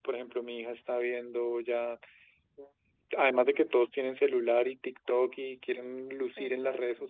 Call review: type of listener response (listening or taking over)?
listening